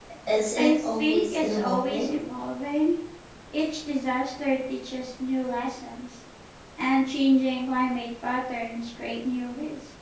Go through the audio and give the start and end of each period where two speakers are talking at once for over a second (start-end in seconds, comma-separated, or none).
0.6-2.2